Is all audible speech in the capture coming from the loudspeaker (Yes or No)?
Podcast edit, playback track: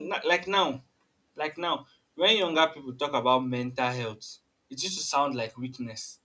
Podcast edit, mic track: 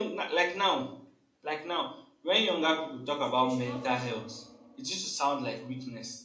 No